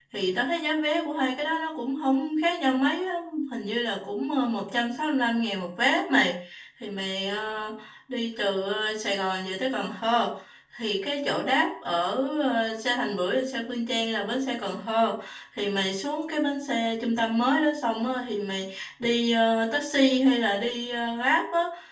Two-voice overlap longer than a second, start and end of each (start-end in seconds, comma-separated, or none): none